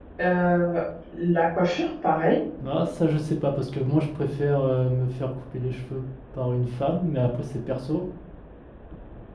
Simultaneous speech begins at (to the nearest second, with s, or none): none